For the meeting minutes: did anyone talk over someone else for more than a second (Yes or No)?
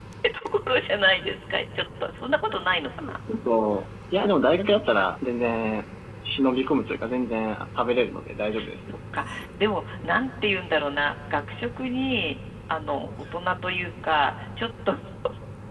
No